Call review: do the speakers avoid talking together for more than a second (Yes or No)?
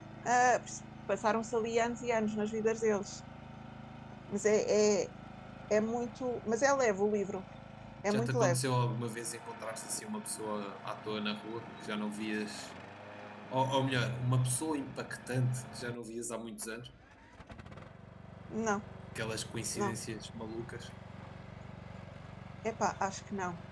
Yes